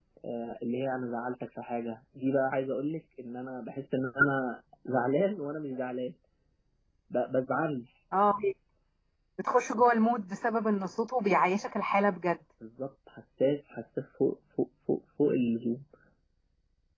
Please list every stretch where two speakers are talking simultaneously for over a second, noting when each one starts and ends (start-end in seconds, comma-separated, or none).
none